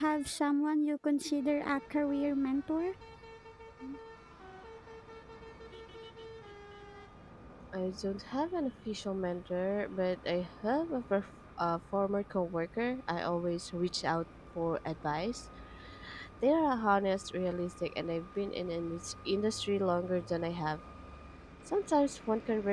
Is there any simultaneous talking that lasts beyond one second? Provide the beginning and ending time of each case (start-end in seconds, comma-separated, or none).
none